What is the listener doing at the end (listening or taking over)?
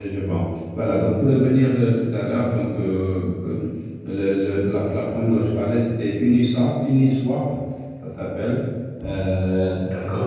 taking over